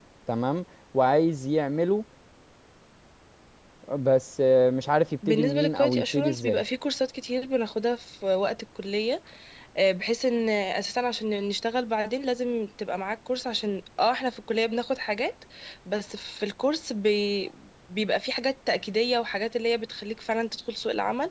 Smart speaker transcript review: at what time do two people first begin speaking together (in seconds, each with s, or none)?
5.2 s